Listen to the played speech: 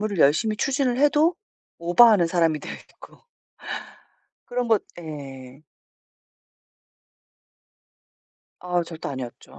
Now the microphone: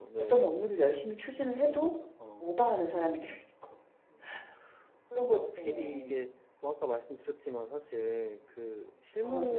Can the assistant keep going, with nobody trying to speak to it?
No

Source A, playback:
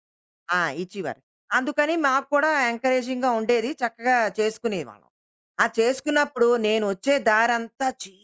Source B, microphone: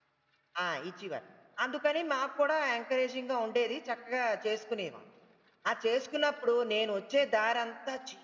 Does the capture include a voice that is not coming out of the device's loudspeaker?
No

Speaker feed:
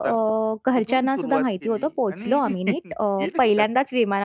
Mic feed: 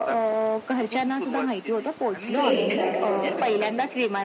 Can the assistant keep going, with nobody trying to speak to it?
No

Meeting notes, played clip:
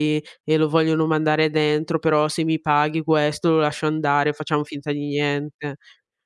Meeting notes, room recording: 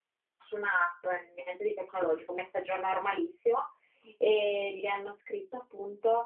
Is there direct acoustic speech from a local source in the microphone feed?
Yes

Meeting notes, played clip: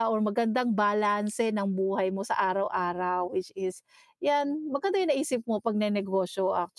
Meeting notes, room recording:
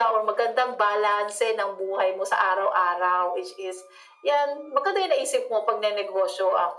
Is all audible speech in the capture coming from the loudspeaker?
Yes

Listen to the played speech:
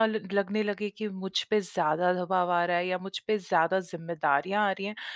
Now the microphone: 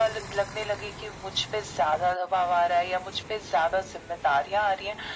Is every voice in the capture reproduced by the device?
Yes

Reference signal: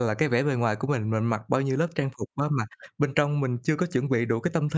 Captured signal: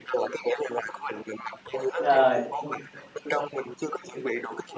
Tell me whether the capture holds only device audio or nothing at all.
No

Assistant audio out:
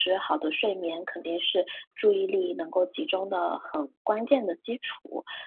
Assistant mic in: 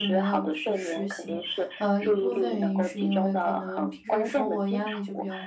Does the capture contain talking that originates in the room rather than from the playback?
Yes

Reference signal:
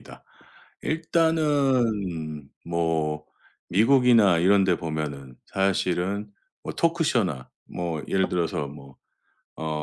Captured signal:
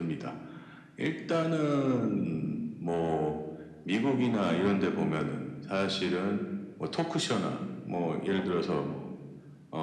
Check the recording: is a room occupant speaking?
No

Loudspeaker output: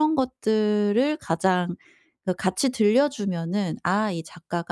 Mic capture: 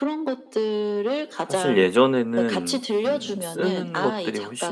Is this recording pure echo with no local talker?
No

